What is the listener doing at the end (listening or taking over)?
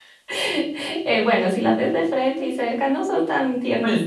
taking over